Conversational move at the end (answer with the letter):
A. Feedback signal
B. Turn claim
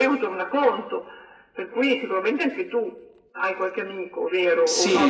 B